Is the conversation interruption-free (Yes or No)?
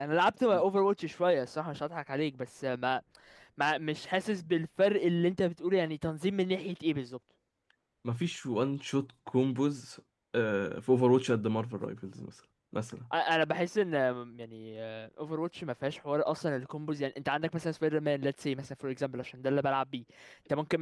Yes